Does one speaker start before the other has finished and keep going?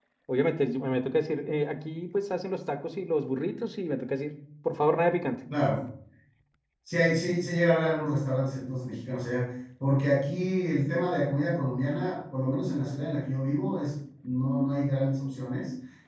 No

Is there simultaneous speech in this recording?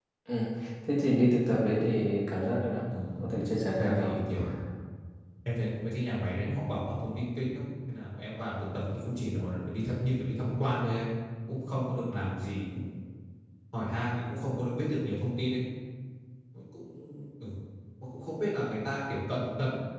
Yes, from 2.9 s

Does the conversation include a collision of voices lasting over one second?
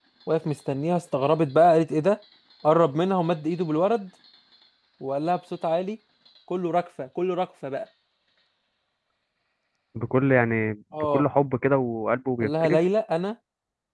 No

